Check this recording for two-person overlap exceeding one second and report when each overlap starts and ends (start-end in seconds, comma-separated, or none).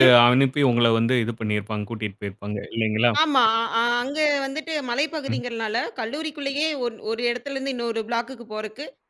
none